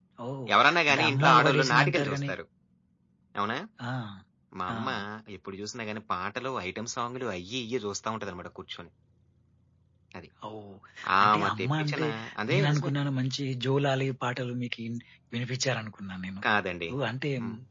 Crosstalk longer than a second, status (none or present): present